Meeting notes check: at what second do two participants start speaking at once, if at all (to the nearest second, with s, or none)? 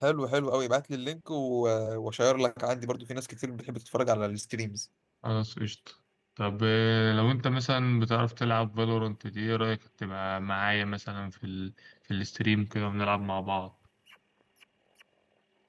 none